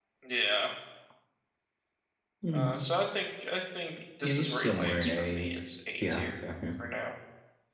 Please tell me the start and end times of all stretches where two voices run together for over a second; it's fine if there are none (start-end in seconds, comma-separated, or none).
4.2-5.5